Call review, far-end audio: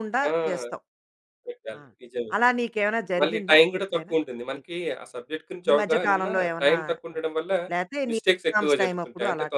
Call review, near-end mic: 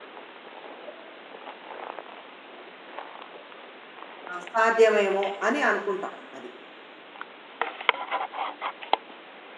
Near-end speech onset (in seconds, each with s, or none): 4.3 s